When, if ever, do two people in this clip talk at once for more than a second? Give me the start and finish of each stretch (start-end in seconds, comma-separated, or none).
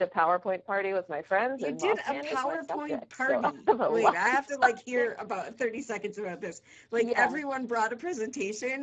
1.6-5.0